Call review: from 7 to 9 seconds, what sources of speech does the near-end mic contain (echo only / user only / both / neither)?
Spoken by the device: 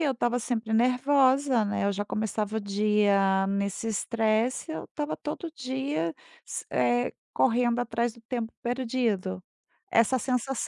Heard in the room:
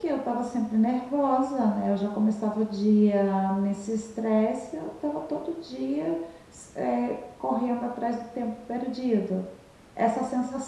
echo only